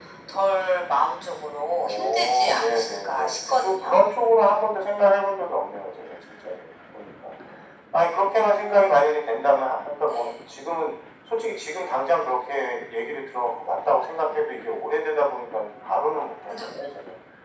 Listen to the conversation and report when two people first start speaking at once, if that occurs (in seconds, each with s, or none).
1.8 s